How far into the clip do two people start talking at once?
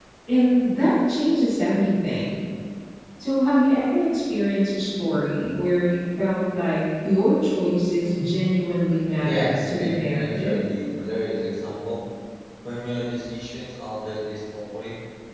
9 s

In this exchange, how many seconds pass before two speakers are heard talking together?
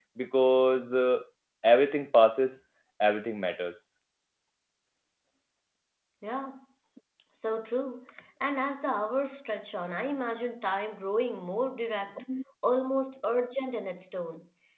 none

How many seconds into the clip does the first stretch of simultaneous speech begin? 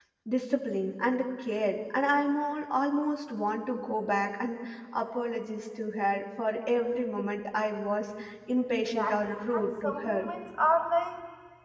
9 s

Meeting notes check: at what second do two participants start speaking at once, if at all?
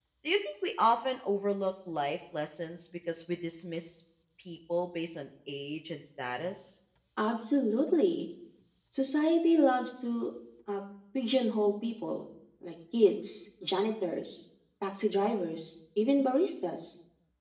none

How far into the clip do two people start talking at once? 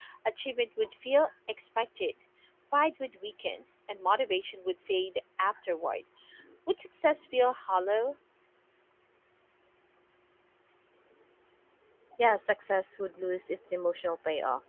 none

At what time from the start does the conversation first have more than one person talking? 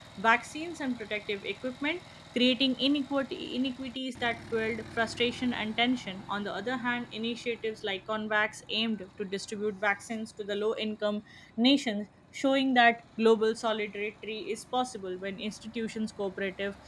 none

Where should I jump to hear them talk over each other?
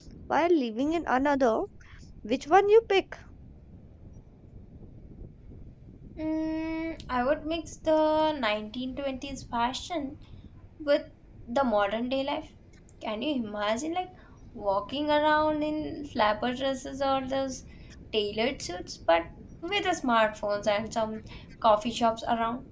none

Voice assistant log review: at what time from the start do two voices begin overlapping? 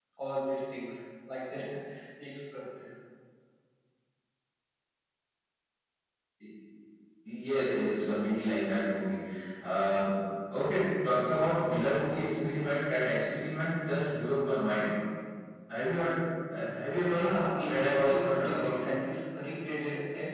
17 s

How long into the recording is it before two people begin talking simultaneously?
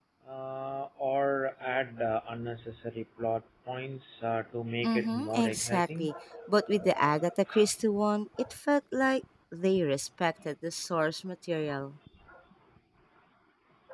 5 s

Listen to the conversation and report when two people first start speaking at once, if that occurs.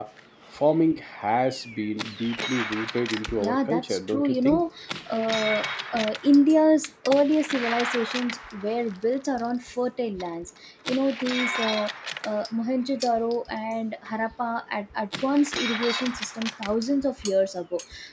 3 s

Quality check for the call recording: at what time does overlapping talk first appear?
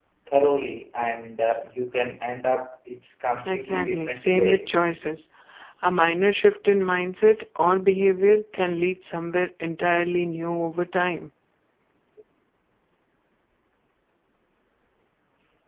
3 s

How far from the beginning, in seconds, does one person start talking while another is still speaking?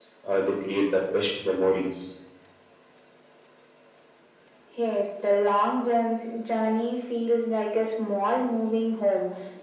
none

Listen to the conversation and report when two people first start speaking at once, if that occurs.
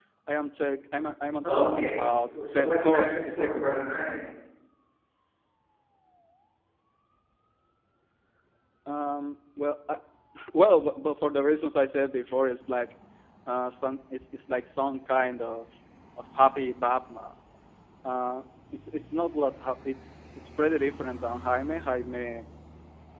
1 s

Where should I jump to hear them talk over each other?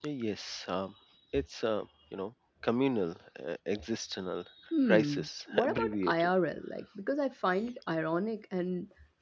5 s

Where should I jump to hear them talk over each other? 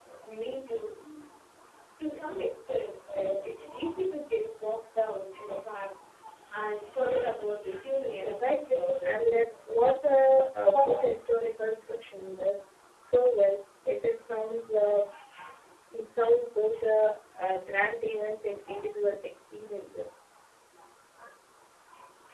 8 s

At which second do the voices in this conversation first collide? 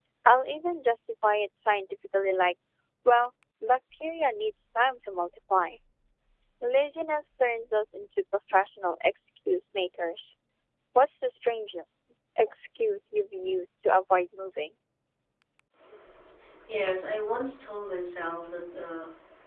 none

